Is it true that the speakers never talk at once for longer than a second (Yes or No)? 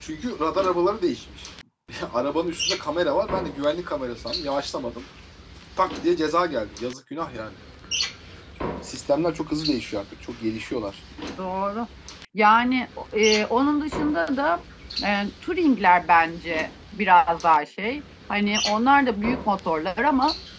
Yes